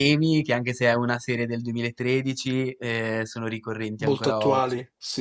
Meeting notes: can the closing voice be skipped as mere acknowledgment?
No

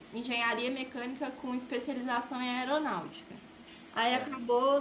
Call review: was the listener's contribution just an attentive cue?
Yes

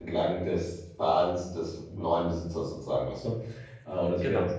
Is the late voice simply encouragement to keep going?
Yes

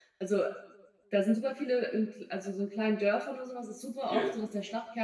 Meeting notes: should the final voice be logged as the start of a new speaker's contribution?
No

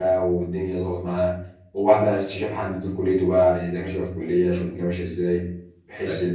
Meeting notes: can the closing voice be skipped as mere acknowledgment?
No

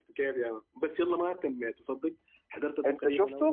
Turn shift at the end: No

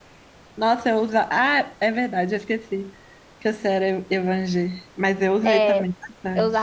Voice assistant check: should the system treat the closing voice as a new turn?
Yes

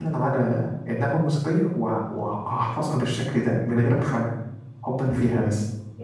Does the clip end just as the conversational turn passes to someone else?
Yes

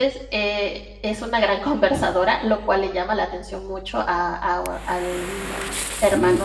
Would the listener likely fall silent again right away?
No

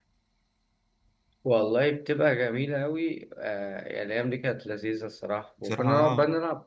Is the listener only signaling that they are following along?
Yes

